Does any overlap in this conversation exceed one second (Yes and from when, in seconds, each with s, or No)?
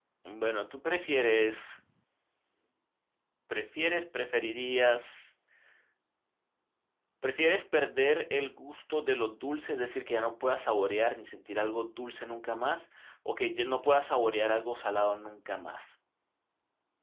No